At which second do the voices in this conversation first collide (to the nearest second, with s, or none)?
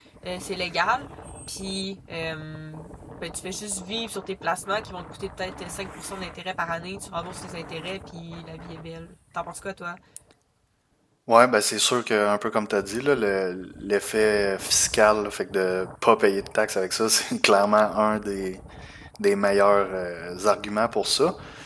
none